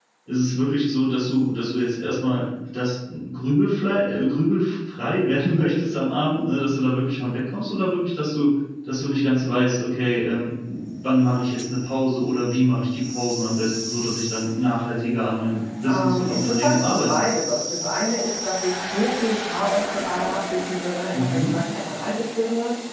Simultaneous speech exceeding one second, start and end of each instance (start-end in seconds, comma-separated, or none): 15.8-17.4